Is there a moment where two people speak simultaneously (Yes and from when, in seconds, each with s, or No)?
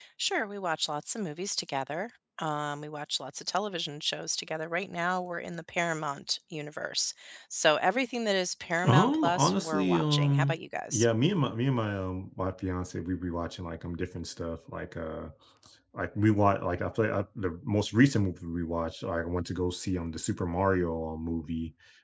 Yes, from 8.8 s